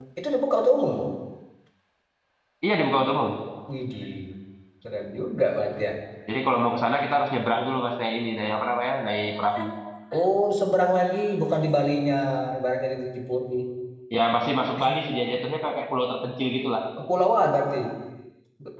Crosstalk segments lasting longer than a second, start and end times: none

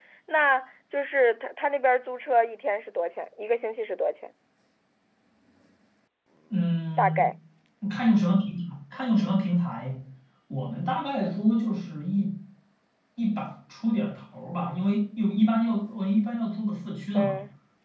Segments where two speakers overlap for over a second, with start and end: none

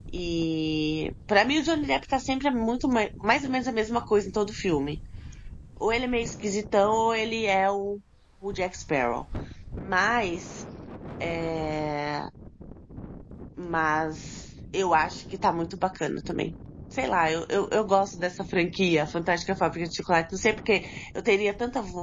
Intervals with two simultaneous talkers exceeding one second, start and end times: none

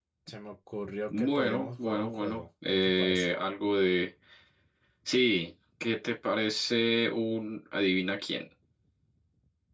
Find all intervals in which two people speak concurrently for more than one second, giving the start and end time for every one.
1.1-3.3

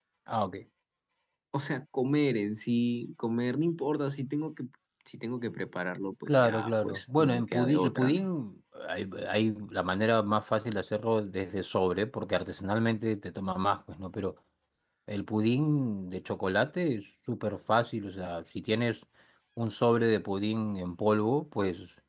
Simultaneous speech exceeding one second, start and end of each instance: 6.4-8.3

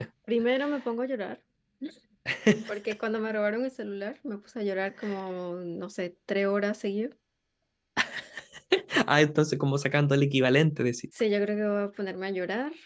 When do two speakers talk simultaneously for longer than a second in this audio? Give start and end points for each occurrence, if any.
none

